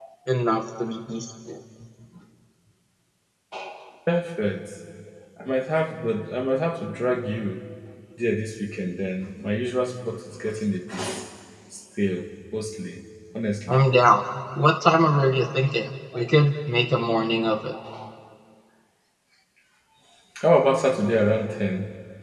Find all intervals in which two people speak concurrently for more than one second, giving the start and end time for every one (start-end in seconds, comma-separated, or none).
none